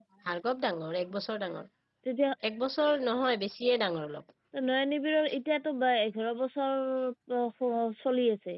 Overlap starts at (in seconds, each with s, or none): none